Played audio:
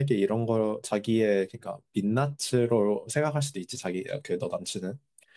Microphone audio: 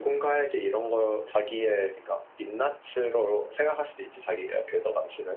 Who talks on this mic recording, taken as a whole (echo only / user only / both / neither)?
echo only